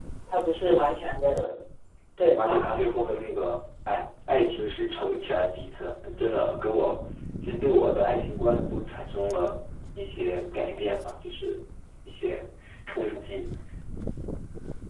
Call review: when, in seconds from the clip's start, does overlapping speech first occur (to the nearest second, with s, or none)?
2 s